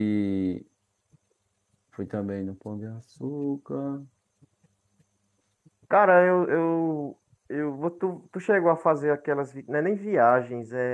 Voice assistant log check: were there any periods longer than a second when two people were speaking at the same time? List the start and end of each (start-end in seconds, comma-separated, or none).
none